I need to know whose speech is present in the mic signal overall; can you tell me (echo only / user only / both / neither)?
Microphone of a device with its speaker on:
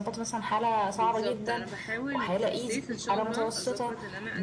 both